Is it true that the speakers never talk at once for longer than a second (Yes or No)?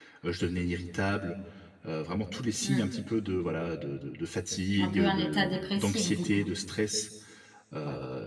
No